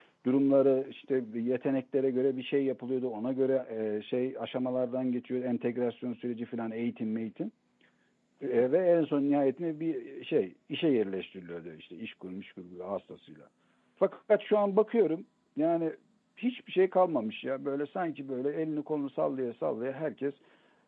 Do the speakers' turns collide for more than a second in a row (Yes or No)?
No